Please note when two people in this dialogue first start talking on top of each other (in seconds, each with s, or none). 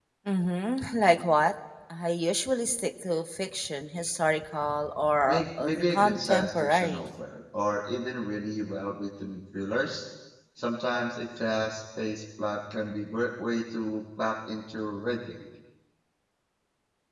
5.3 s